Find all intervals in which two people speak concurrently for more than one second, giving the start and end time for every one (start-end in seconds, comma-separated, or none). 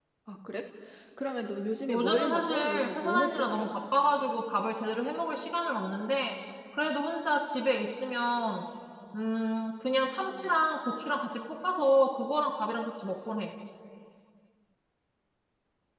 1.9-3.7